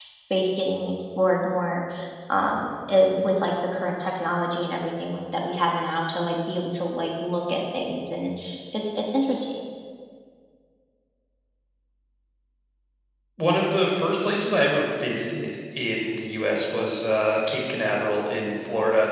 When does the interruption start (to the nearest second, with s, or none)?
none